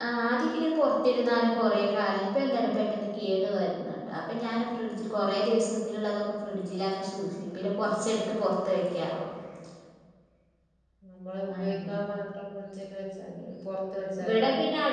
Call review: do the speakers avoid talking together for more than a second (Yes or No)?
Yes